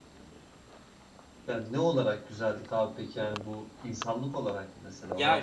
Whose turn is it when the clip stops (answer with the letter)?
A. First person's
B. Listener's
B